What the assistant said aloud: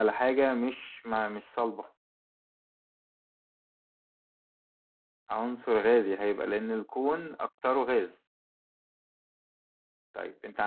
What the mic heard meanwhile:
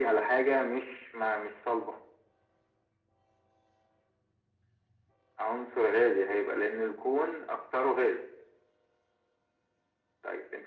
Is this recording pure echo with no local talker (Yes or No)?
Yes